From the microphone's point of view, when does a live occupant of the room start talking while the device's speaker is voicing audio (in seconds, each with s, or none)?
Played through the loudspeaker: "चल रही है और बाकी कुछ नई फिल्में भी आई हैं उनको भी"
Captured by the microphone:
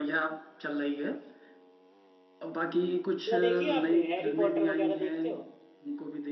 3.3 s